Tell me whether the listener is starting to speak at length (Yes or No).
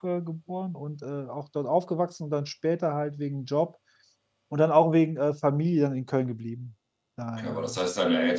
Yes